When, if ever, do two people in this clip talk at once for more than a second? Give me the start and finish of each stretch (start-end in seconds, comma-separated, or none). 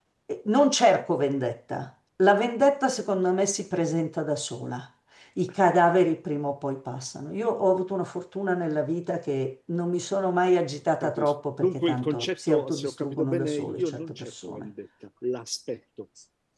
11.0-14.7